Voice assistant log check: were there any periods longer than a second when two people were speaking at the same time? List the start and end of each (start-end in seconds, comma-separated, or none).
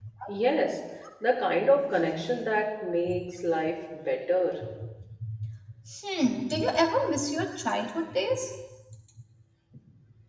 none